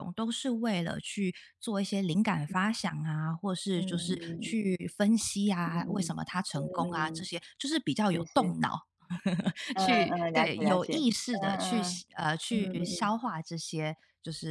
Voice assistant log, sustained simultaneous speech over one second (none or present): present